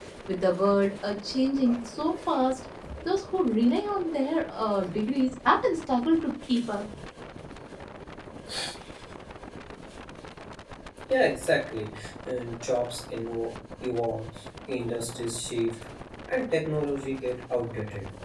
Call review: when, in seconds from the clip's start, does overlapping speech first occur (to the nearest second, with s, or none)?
none